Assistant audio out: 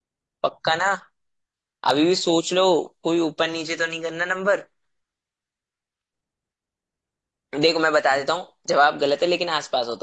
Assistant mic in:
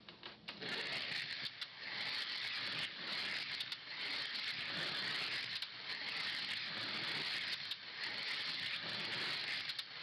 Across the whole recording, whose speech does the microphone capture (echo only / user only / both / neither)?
neither